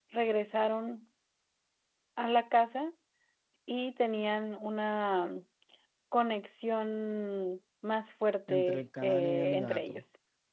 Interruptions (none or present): present